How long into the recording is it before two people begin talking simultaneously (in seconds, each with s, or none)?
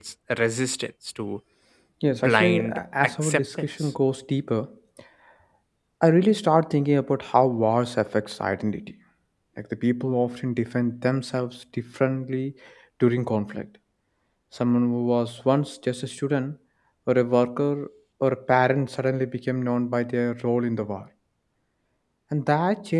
2.1 s